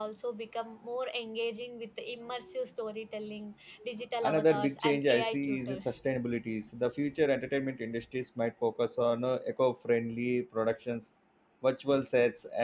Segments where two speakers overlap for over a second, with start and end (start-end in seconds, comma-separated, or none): 4.2-6.0